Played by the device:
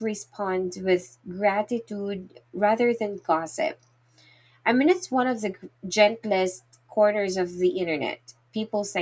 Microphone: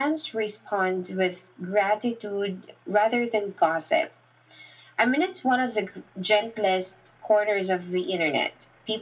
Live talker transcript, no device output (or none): none